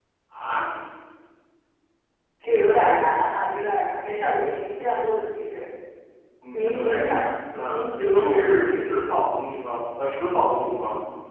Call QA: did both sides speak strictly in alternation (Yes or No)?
No